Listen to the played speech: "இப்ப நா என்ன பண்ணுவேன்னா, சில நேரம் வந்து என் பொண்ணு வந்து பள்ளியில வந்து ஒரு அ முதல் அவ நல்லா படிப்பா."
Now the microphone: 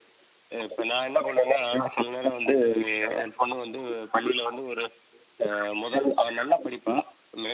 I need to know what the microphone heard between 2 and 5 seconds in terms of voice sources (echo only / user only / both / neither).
echo only